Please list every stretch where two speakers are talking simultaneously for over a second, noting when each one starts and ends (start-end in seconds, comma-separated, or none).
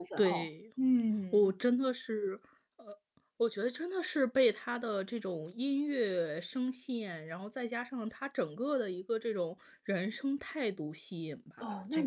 none